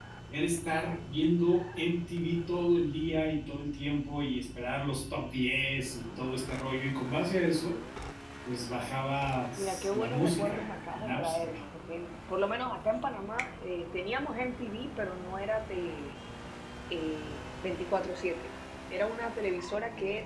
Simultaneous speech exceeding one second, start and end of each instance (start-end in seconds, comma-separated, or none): 9.6-11.5